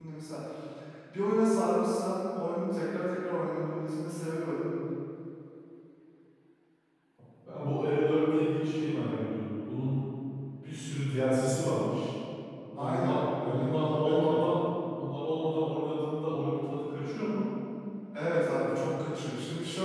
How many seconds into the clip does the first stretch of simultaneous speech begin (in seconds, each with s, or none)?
12.8 s